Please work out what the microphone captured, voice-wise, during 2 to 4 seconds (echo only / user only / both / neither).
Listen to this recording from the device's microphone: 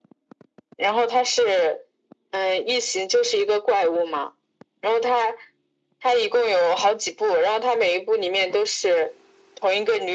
echo only